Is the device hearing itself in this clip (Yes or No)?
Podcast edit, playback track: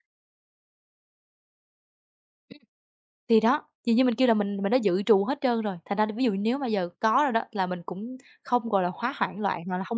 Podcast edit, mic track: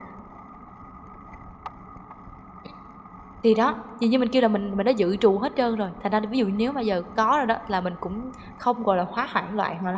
Yes